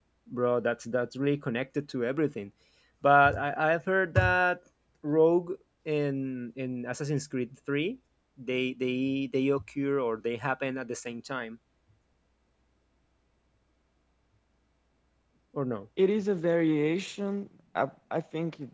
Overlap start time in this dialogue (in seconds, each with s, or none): none